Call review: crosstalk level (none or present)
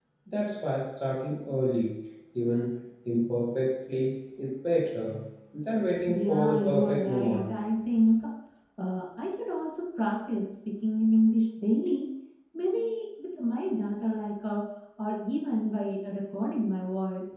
present